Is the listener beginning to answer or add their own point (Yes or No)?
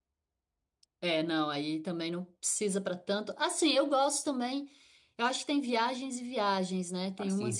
No